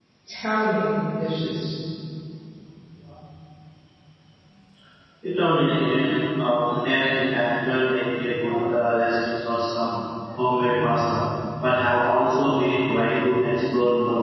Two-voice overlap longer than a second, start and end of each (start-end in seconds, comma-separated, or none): none